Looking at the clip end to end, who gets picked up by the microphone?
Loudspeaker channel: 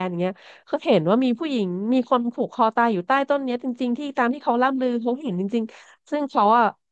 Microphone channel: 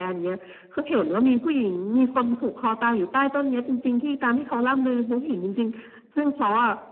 echo only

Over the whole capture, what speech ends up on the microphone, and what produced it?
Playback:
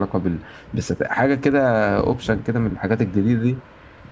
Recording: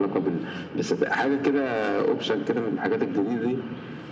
echo only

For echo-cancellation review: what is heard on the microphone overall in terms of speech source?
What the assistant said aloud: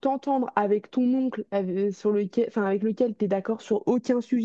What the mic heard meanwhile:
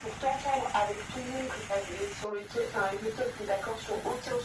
echo only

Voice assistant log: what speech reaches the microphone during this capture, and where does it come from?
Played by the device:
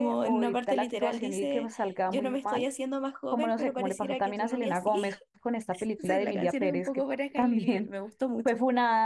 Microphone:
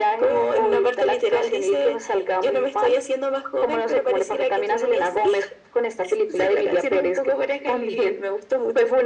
echo only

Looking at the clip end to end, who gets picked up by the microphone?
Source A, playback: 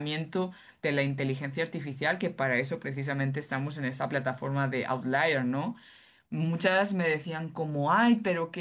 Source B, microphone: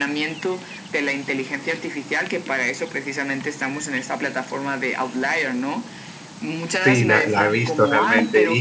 both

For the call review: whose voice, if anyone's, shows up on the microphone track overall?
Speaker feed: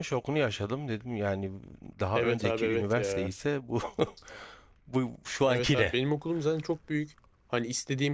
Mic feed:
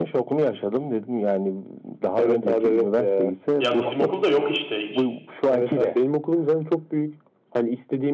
both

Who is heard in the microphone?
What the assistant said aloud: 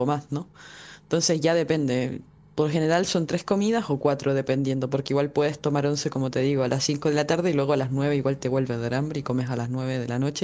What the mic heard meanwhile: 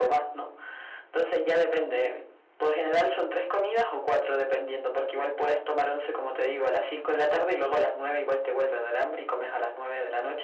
echo only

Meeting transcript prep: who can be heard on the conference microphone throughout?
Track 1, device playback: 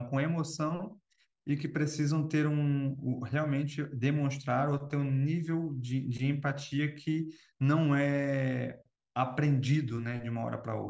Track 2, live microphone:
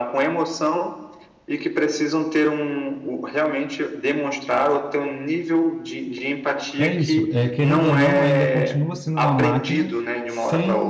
both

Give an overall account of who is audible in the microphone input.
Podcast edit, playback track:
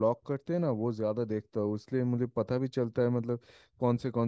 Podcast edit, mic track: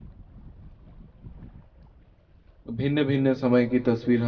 user only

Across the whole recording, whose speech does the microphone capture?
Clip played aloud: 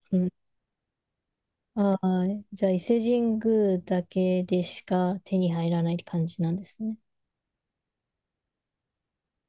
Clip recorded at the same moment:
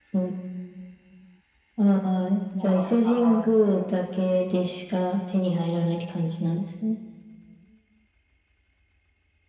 both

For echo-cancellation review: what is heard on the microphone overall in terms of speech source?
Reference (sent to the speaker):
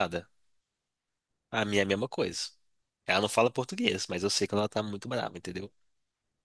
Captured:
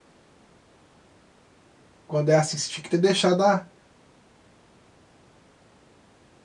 user only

